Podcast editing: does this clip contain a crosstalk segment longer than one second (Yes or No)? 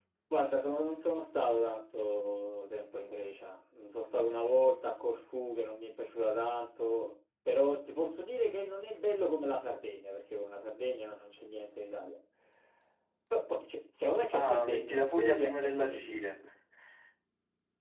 Yes